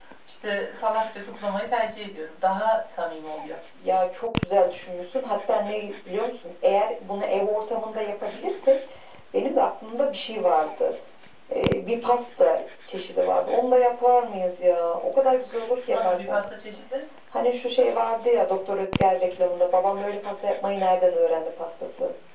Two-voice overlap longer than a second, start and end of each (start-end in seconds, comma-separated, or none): none